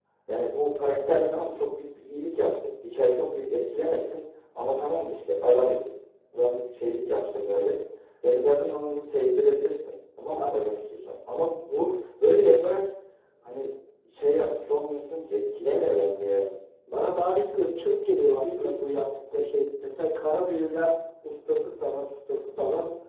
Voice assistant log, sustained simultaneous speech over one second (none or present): none